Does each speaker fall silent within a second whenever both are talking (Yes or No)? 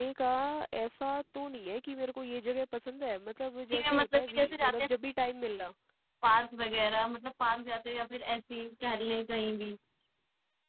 No